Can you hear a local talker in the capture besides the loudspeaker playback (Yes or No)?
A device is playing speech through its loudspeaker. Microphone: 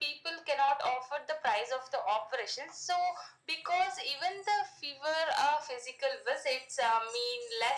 No